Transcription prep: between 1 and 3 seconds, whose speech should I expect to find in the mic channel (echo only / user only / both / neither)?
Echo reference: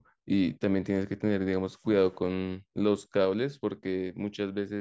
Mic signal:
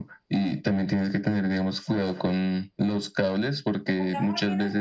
echo only